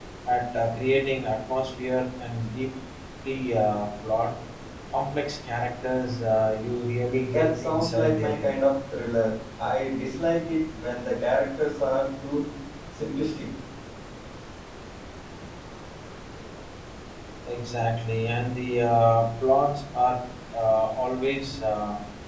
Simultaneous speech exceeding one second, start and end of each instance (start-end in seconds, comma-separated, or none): 7.3-8.5